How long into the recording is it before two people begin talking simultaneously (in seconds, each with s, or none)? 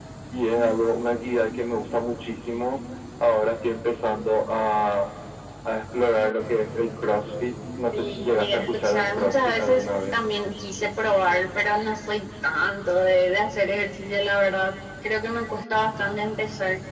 7.9 s